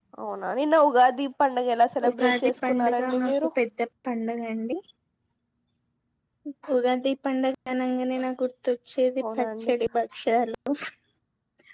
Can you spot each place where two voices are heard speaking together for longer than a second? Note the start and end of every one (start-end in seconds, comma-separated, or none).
2.1-3.5